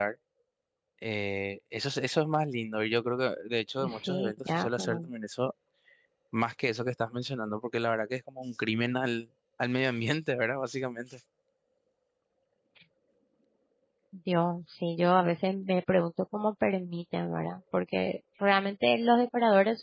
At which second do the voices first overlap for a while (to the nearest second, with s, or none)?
4 s